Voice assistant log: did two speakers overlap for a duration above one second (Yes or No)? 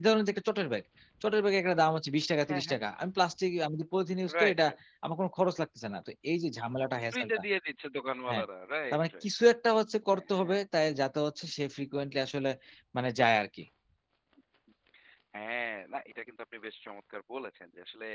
No